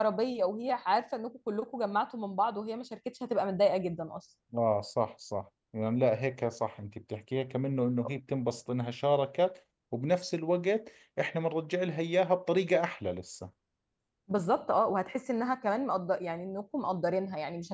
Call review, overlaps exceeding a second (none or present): none